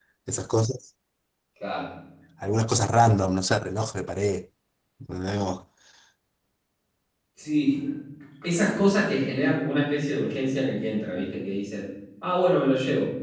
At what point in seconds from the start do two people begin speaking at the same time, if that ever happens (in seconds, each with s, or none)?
none